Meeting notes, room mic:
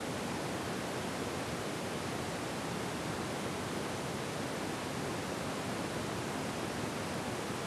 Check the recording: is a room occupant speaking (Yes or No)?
No